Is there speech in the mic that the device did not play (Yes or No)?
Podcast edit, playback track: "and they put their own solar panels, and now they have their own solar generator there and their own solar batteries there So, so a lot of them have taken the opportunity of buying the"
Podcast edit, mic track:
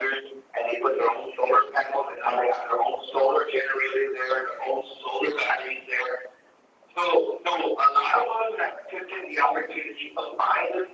No